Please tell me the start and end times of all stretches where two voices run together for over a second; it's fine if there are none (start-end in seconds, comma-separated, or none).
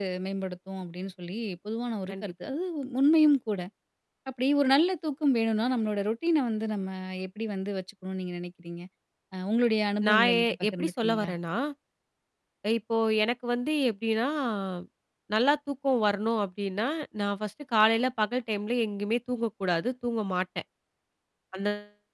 10.1-11.3